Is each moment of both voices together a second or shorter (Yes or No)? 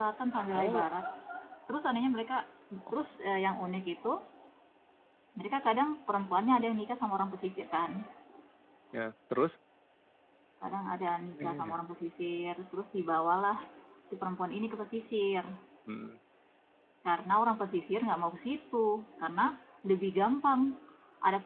Yes